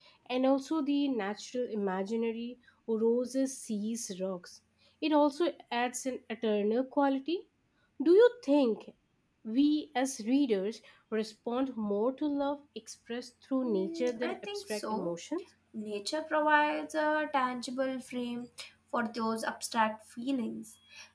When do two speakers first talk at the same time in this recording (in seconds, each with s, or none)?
13.6 s